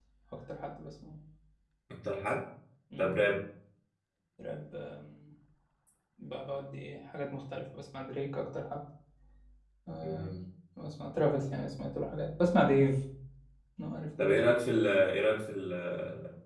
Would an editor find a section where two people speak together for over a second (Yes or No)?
No